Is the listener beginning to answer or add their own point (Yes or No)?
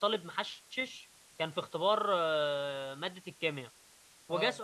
No